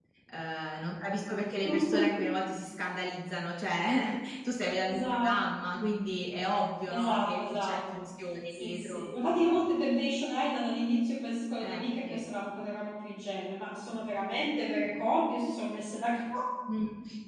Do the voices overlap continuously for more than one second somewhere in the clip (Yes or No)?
Yes